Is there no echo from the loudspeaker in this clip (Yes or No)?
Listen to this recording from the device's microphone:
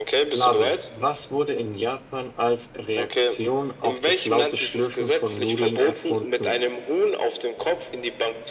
No